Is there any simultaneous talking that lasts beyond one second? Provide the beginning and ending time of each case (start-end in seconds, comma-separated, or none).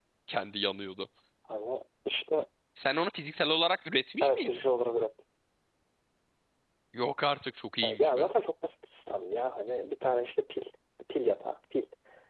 none